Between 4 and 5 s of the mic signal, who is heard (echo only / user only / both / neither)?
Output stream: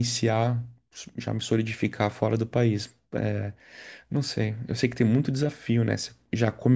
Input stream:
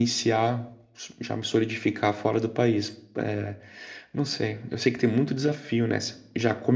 echo only